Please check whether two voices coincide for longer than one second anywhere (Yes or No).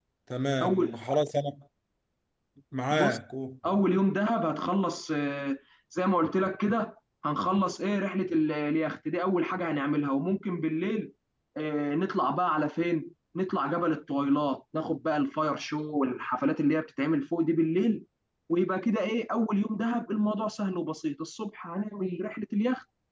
No